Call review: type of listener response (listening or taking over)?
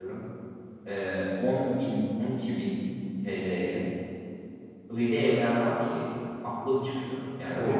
listening